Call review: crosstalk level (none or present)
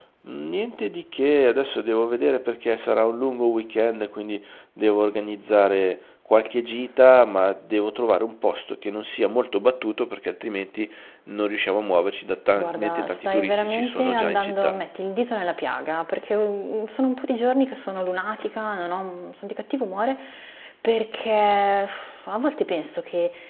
present